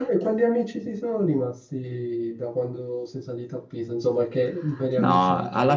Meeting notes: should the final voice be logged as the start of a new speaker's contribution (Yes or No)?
Yes